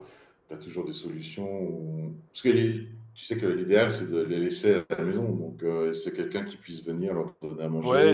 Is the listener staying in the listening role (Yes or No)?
No